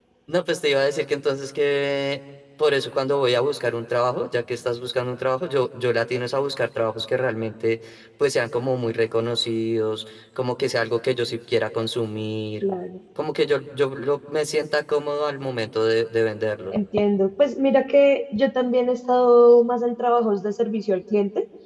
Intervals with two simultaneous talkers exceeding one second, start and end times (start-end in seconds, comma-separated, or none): none